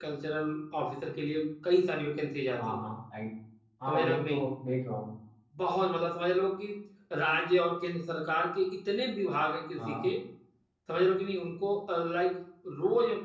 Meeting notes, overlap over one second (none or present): none